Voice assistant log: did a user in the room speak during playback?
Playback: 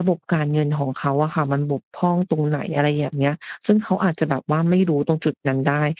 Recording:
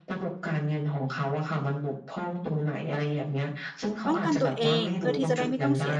Yes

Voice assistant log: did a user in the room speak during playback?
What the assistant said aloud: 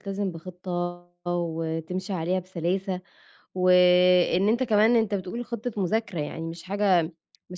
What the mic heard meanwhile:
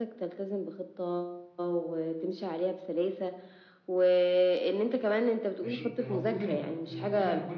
Yes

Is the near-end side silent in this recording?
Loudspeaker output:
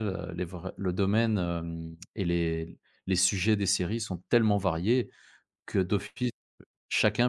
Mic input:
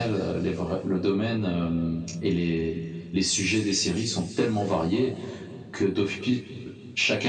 Yes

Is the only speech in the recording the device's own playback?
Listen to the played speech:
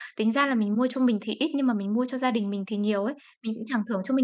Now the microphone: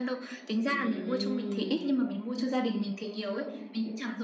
No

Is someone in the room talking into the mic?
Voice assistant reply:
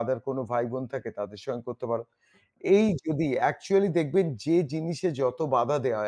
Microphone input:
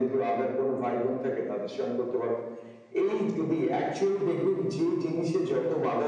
No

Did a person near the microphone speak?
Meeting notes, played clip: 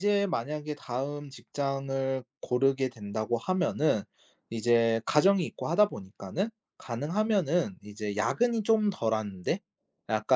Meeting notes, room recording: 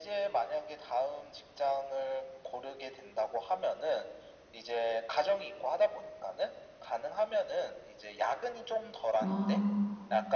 Yes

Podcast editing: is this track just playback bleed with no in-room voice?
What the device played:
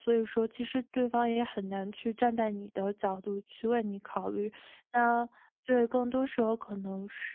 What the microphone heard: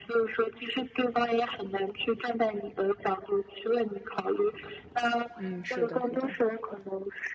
No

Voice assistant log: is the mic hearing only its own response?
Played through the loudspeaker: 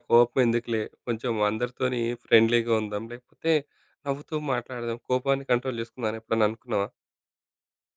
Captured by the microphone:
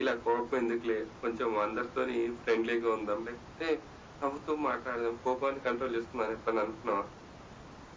Yes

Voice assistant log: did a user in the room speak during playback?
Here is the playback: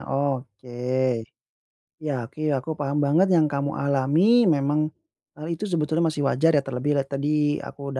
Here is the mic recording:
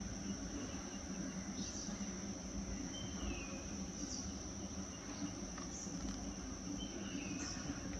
No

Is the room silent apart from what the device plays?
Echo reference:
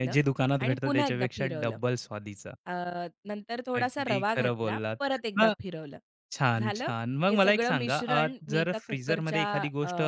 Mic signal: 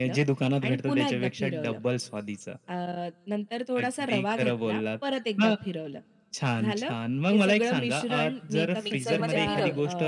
No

